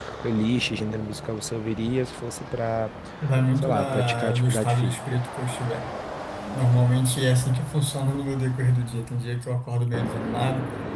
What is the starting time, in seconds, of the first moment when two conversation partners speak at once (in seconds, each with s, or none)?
3.6 s